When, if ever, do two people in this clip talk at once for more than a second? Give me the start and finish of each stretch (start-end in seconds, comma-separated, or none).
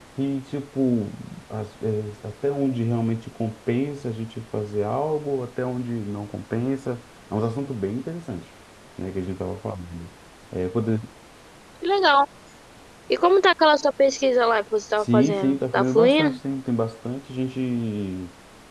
15.0-16.4